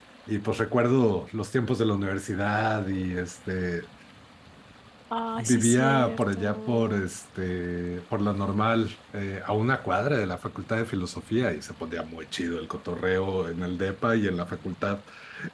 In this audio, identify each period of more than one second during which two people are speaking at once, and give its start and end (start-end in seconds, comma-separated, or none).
5.4-7.0